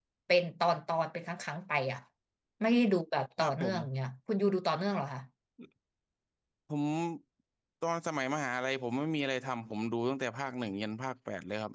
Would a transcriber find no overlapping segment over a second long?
Yes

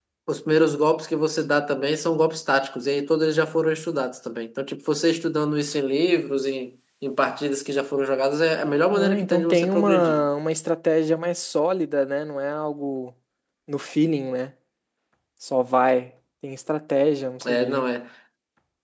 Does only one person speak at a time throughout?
No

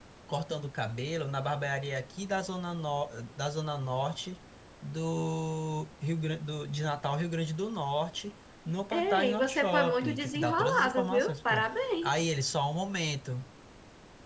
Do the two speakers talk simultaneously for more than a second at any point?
Yes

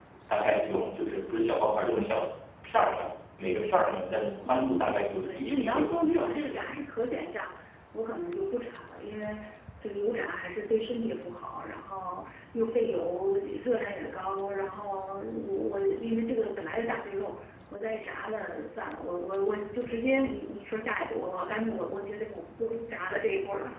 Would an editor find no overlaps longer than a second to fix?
No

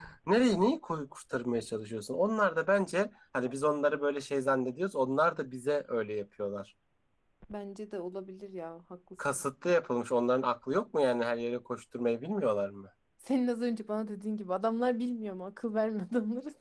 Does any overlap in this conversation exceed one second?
No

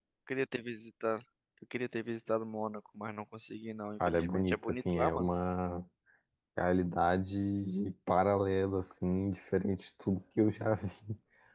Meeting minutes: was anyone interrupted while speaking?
Yes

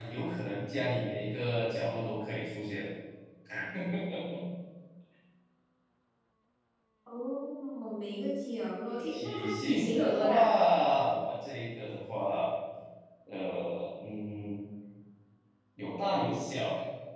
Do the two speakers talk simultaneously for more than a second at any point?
Yes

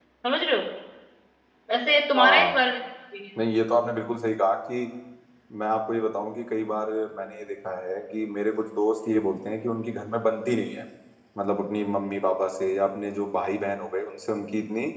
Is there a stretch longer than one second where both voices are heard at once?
No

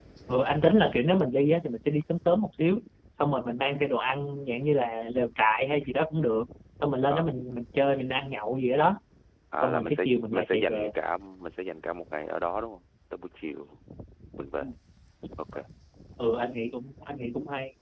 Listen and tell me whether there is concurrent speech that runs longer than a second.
Yes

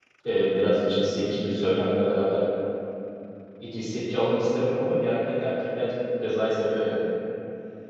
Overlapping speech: No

